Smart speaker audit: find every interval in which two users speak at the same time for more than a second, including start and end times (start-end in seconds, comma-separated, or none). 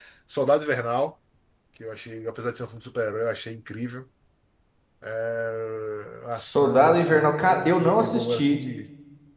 6.4-8.6